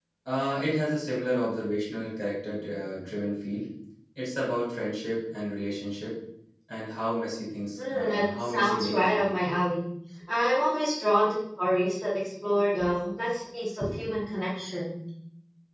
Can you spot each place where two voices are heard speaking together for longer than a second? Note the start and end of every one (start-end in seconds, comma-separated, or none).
7.8-9.4